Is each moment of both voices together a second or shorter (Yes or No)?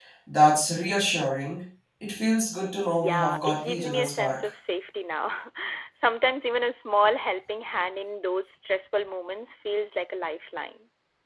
No